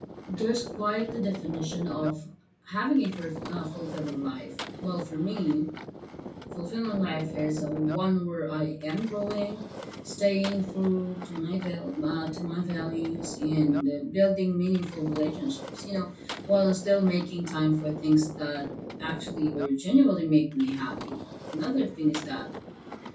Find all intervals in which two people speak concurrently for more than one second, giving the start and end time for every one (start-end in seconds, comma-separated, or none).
none